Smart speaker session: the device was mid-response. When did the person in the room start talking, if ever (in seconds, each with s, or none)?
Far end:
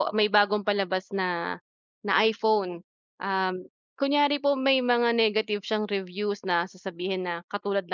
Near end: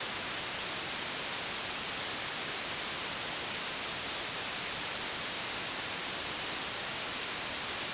none